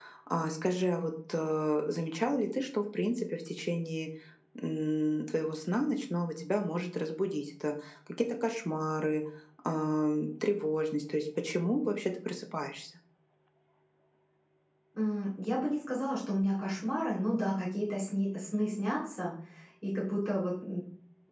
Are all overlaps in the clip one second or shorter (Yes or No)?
Yes